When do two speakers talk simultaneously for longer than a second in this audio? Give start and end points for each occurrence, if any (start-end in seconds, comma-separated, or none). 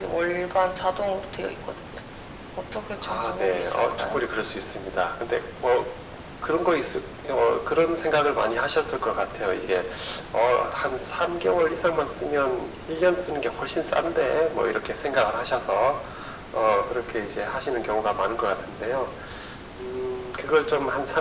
3.0-4.2